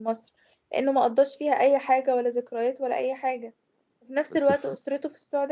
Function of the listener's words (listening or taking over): listening